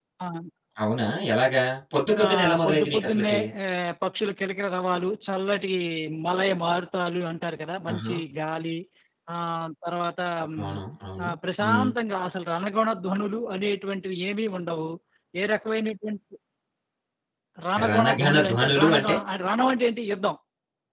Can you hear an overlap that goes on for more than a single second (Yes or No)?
Yes